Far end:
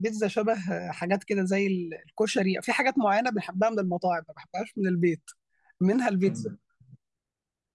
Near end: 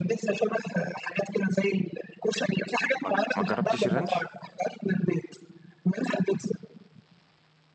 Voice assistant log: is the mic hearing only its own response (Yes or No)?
No